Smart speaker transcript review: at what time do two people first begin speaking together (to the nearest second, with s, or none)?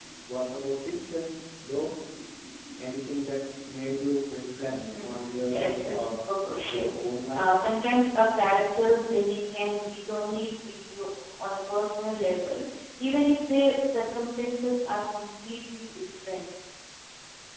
5 s